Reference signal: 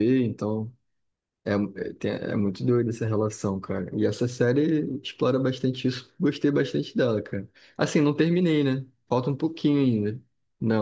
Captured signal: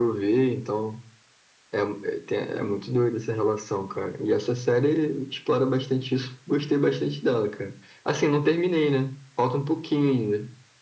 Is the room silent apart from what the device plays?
Yes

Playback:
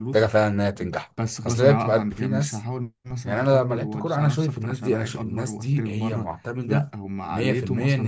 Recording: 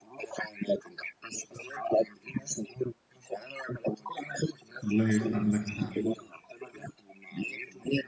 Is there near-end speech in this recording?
Yes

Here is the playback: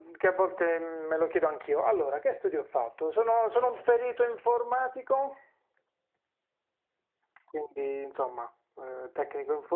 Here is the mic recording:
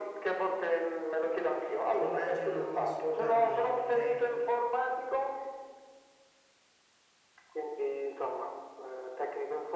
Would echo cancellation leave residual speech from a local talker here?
Yes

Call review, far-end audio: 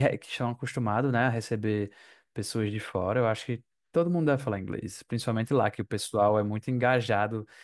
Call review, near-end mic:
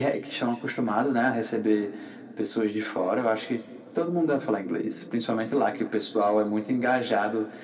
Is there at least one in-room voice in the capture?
No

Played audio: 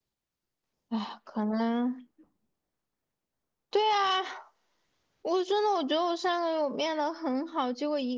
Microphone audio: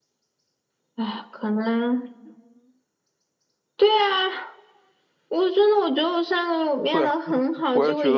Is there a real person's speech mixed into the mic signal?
Yes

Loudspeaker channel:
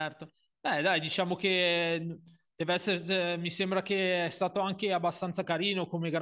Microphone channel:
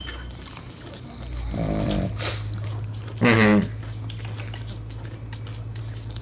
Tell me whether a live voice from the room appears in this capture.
Yes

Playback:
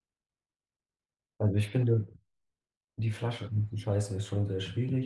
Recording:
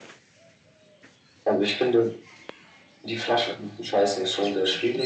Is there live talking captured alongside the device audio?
No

